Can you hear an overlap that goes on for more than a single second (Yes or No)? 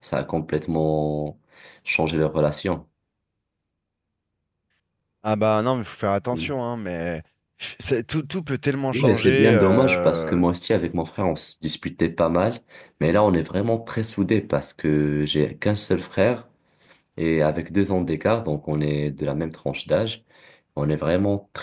Yes